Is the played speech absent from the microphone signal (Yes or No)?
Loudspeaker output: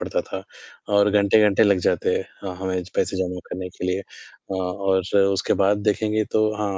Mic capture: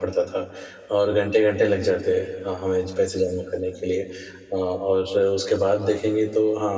No